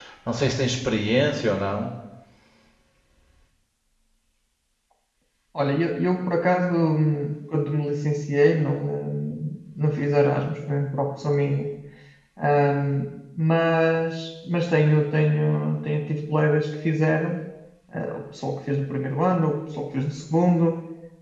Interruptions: none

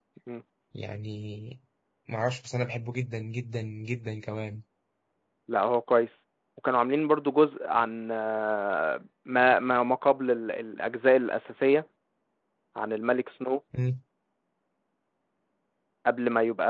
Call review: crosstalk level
none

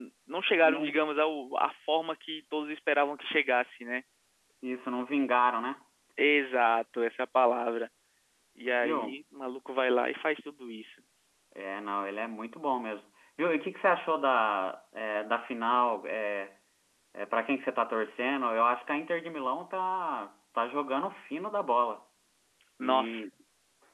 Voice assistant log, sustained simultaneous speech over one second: none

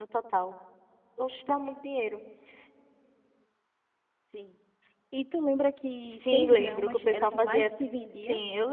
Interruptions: present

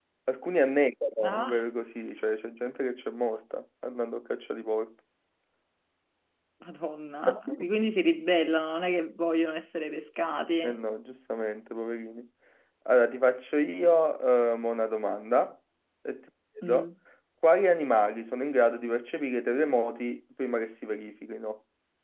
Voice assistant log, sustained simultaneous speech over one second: none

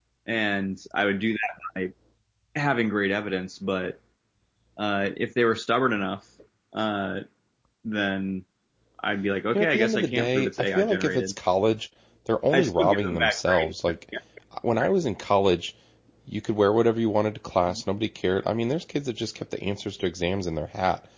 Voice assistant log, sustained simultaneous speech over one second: present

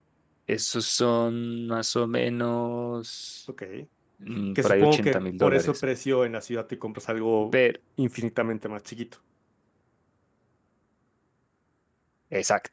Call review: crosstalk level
present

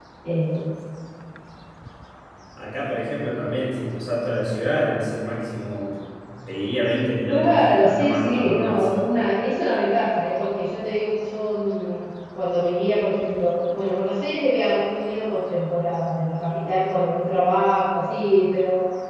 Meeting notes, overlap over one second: present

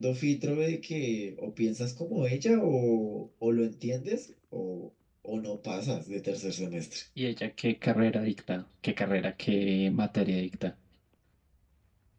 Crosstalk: none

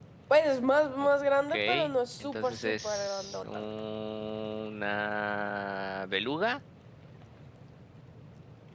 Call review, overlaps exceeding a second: present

